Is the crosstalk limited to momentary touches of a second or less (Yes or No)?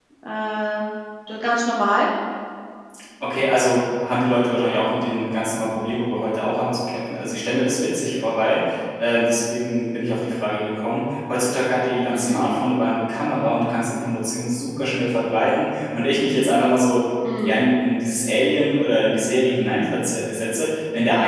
Yes